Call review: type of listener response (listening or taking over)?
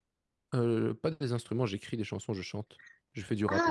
taking over